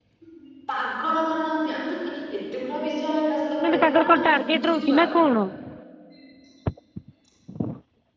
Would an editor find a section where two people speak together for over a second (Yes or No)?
Yes